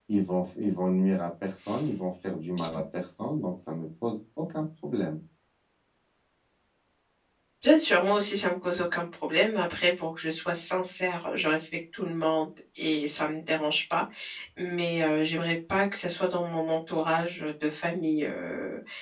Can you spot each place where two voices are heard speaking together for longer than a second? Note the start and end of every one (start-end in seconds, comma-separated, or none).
none